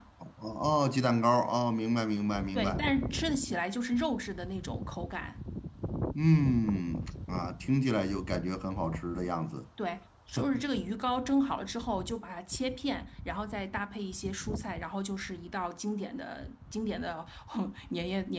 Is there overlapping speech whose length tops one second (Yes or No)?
No